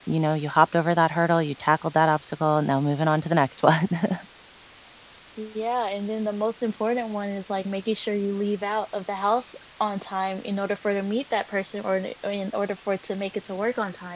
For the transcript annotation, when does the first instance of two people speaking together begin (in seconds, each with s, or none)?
none